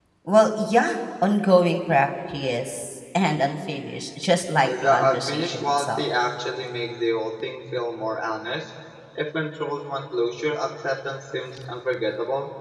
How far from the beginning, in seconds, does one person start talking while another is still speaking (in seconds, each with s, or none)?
4.6 s